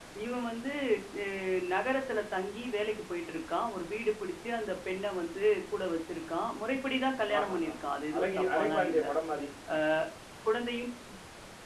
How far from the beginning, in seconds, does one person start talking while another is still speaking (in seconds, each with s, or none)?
7.3 s